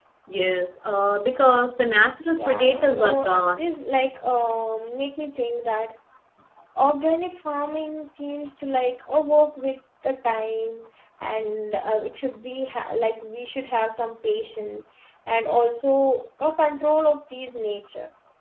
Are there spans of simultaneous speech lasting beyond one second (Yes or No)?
Yes